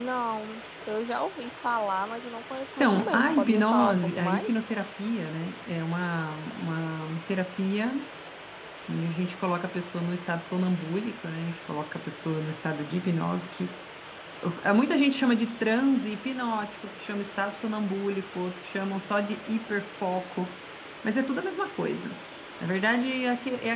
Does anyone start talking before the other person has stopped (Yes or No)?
Yes